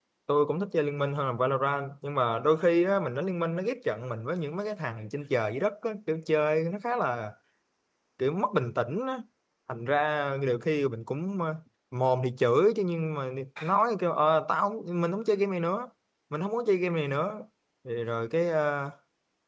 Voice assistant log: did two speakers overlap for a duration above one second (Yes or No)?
No